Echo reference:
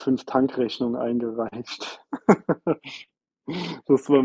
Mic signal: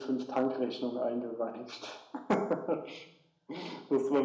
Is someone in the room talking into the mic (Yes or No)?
No